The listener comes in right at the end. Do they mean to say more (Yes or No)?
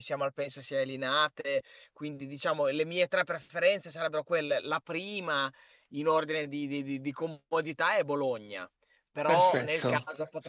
No